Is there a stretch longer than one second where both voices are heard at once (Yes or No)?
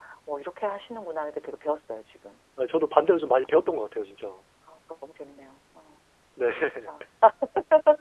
No